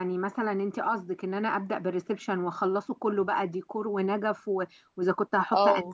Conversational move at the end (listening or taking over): listening